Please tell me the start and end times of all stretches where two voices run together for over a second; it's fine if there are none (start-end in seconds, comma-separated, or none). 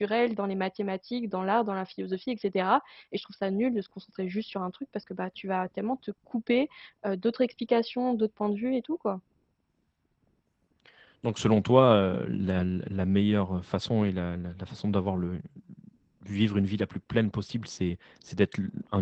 none